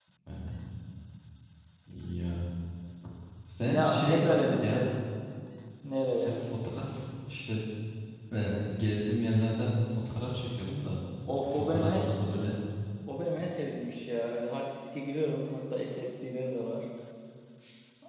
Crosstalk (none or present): present